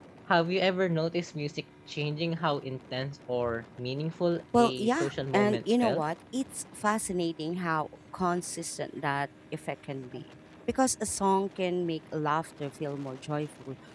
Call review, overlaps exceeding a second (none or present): present